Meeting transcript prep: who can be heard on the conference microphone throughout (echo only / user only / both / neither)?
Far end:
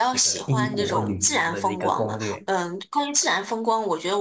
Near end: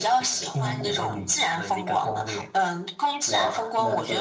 both